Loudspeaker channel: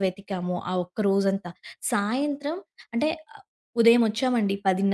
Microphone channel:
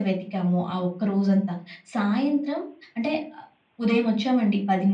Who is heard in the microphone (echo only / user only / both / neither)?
echo only